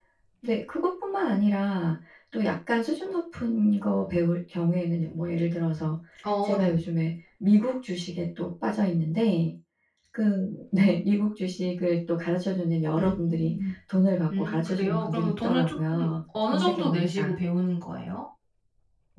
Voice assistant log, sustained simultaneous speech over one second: present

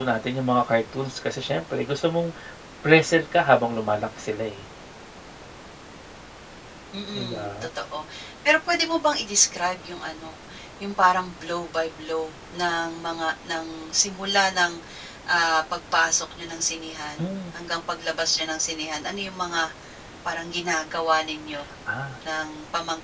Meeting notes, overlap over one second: none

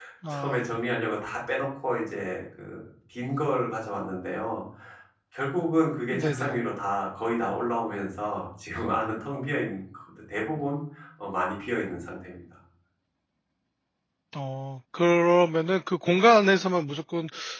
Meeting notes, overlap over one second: none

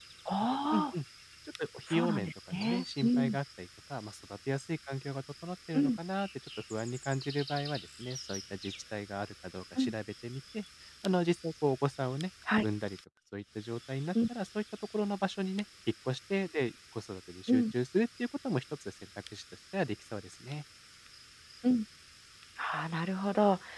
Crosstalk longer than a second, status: present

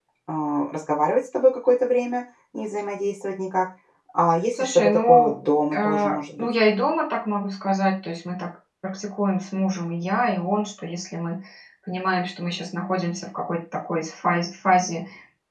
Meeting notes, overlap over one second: present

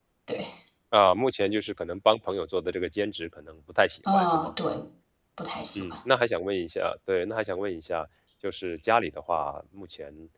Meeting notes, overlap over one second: none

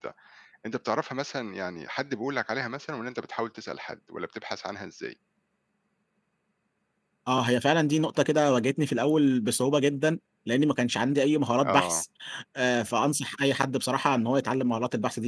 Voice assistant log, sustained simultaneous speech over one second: none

